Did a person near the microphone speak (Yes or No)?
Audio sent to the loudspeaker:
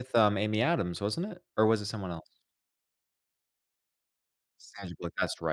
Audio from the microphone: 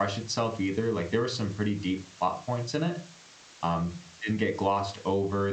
Yes